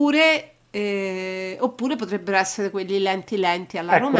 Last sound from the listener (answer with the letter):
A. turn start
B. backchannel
A